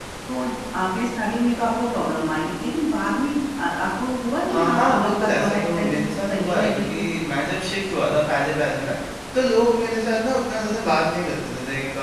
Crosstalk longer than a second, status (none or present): present